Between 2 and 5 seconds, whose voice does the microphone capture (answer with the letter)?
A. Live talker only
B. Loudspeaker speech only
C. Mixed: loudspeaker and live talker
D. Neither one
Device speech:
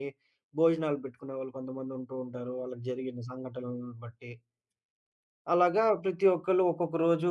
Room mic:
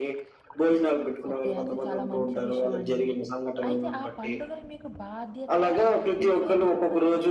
C